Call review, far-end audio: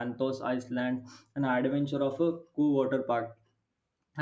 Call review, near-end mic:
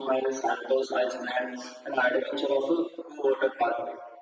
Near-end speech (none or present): none